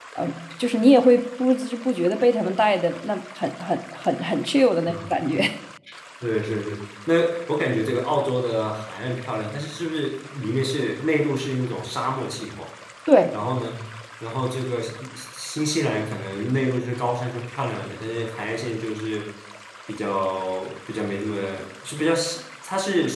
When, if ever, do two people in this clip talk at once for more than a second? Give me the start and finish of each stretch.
none

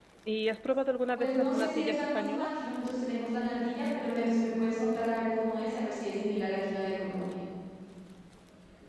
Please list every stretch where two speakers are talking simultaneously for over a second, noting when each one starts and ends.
1.2-2.6

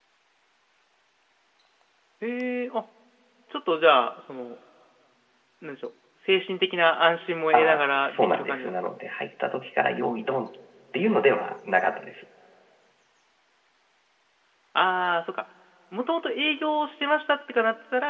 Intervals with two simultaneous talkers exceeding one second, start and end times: 7.5-8.8

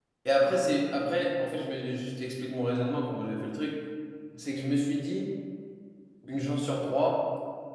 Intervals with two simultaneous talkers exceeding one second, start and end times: none

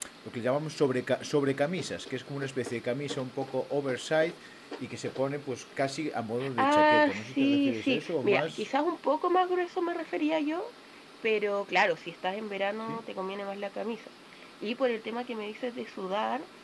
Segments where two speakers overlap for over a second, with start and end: 6.6-8.7

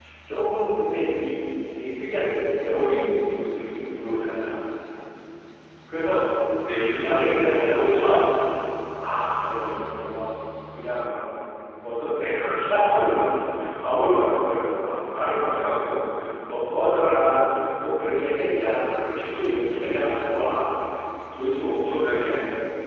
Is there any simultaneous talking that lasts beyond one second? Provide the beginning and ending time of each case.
7.0-8.2

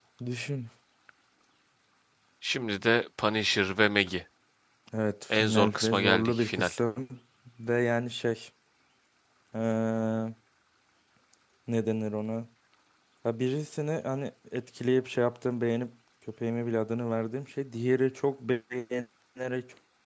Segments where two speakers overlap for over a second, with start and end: 5.3-6.7

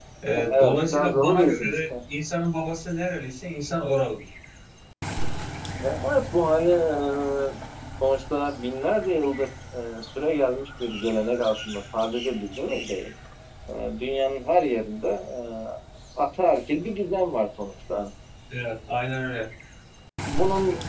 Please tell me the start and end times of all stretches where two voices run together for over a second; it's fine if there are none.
0.5-1.8

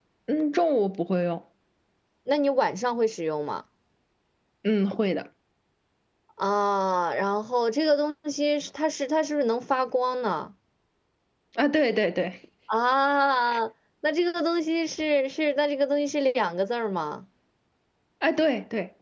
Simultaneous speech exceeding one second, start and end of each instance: none

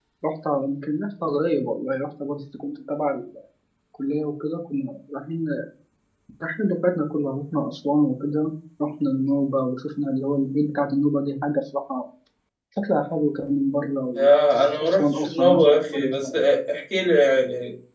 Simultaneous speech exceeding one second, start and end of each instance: 14.8-16.4

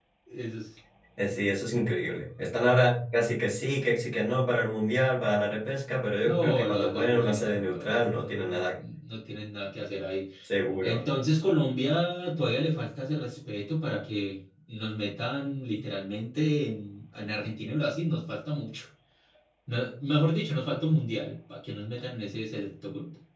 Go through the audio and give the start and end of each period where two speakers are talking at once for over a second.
6.2-8.6

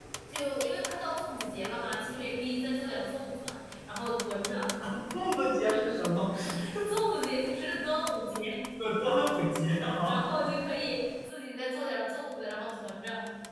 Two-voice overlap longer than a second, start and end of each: none

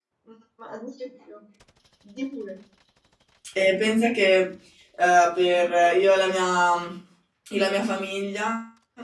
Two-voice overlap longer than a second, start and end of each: none

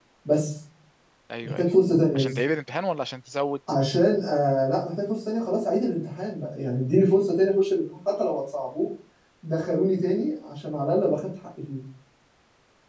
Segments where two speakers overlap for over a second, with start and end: none

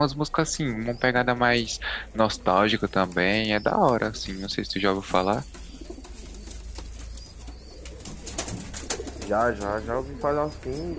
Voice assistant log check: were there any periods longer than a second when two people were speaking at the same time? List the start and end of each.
none

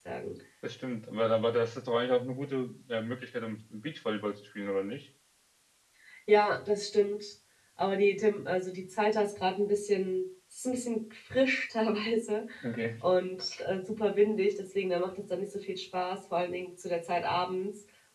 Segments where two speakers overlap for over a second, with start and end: none

